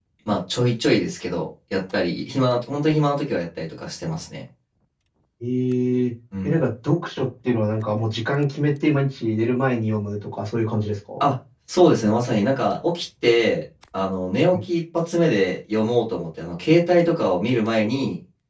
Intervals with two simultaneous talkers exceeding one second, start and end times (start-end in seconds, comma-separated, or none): none